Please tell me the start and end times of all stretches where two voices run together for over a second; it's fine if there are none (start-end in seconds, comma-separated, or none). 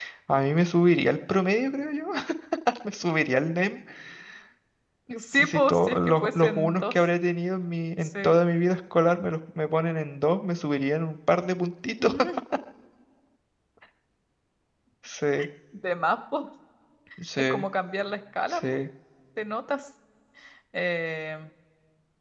5.4-7.0